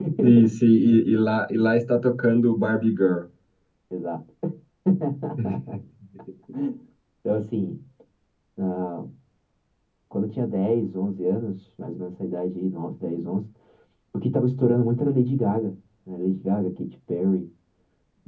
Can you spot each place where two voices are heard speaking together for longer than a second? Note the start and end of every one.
none

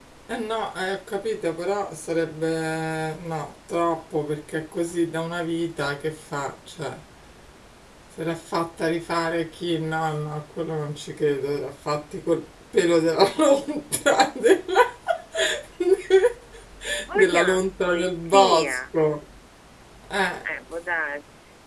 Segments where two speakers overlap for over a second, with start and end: 17.1-18.8

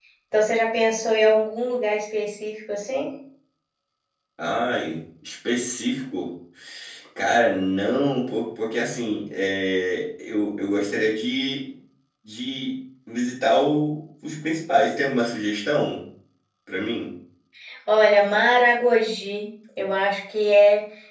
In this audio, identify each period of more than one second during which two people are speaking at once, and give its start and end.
none

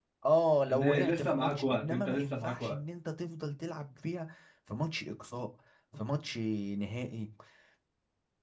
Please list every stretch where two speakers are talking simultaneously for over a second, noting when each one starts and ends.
0.7-2.8

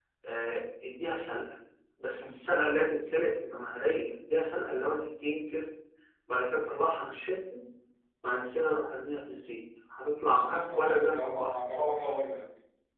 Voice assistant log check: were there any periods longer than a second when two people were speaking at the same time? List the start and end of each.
10.2-11.5

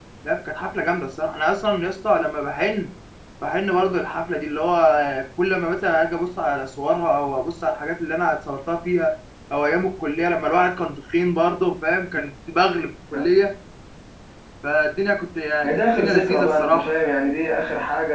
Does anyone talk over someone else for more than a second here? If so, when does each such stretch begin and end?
15.6-16.9

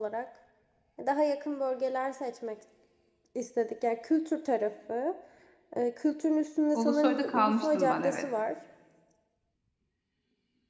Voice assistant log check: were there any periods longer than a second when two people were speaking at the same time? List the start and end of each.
6.7-8.3

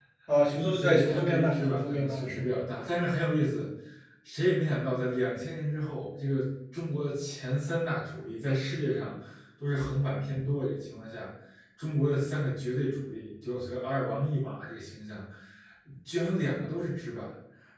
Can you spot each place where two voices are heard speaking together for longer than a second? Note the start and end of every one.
0.6-2.6

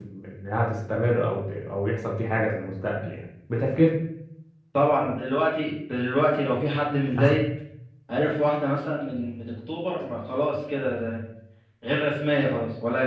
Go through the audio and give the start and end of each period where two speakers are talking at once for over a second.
none

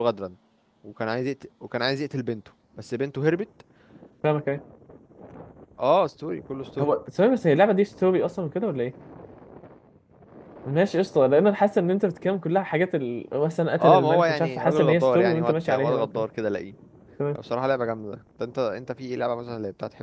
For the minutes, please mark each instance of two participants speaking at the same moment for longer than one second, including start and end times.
13.8-16.2

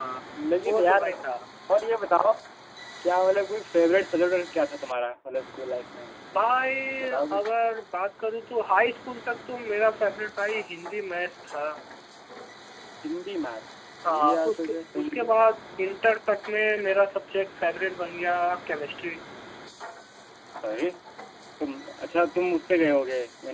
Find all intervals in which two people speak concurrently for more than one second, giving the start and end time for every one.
14.0-15.2

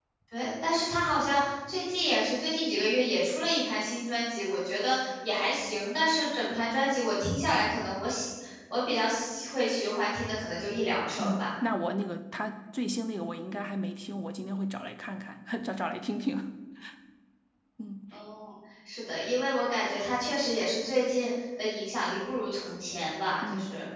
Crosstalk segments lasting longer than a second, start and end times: none

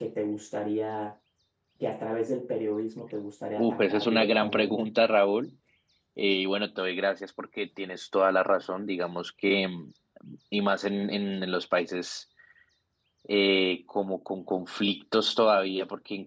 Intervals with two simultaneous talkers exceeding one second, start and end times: 3.6-4.9

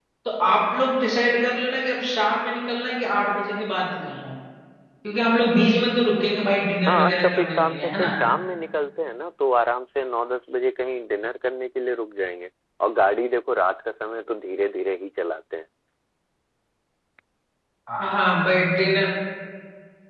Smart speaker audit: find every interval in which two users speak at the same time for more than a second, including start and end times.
6.9-8.1

